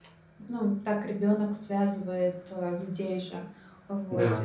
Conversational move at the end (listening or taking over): listening